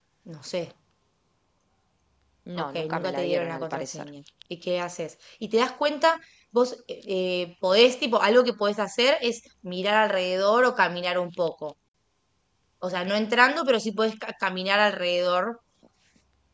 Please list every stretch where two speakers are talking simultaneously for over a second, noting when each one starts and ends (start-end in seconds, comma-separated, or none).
2.6-4.1